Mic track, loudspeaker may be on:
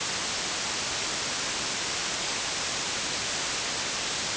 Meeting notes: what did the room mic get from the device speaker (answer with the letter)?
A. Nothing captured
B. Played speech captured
A